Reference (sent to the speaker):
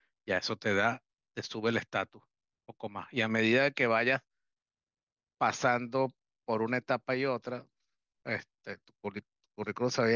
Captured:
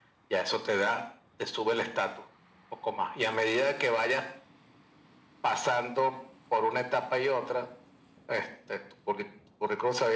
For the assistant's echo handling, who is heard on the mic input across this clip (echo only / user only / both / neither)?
echo only